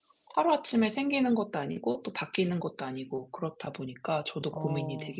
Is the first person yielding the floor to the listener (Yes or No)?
Yes